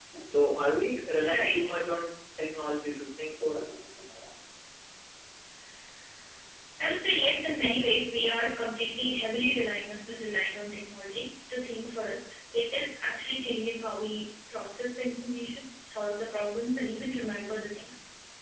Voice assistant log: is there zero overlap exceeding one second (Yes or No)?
Yes